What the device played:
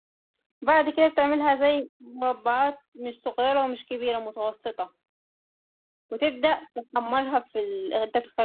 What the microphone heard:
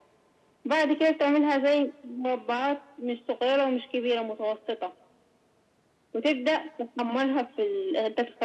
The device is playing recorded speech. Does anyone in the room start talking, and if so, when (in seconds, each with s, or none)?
none